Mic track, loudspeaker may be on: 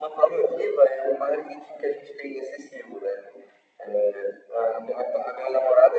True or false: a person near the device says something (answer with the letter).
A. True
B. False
B